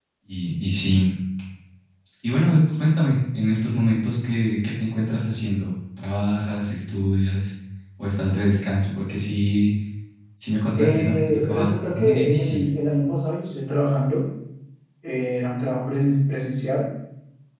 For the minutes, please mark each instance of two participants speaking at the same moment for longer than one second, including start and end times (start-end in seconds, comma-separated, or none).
10.8-12.7